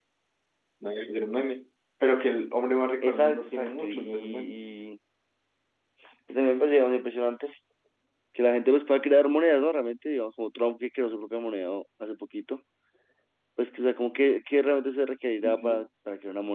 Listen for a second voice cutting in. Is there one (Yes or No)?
Yes